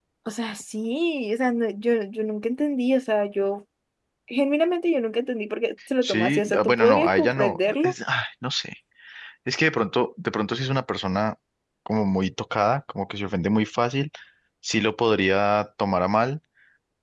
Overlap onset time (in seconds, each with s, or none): 6.0 s